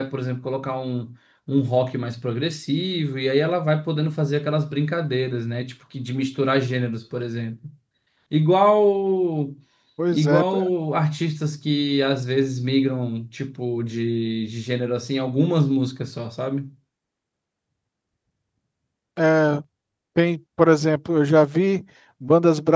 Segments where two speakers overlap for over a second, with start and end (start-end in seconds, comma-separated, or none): none